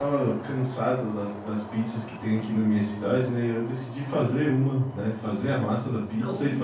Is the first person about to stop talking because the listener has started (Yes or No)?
No